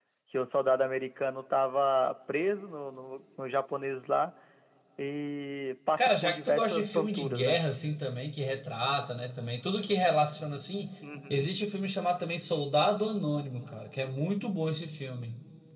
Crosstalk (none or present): present